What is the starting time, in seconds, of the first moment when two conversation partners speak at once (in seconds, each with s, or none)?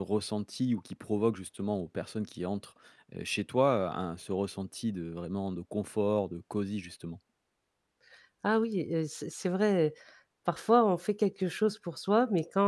none